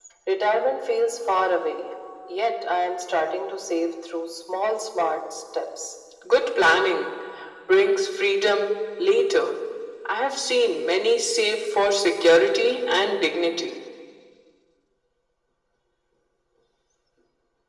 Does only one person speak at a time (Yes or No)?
Yes